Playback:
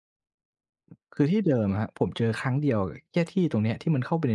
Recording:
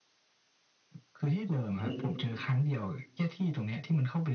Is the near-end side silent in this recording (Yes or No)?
No